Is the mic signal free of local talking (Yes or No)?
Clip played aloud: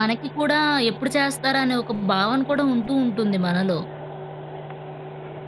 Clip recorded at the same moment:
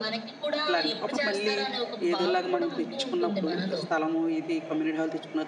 No